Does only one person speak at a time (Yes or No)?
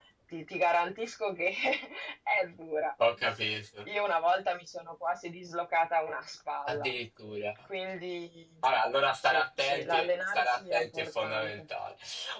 No